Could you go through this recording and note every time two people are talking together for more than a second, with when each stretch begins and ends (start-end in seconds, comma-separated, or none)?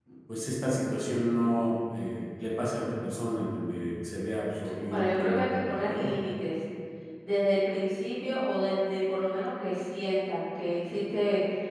4.9-6.1